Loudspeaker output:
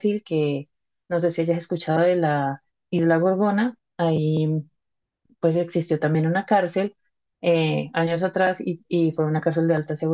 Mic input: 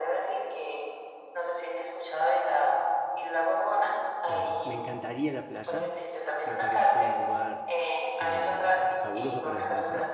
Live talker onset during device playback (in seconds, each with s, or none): 4.2 s